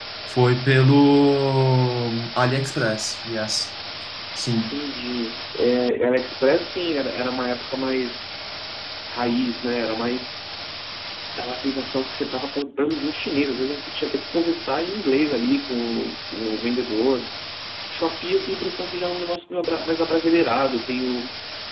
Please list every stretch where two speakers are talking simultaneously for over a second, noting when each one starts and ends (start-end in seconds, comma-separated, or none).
none